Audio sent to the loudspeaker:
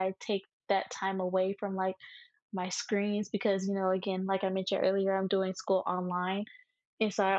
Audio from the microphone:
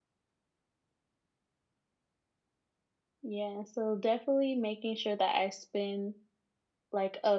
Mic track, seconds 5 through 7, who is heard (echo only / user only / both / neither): user only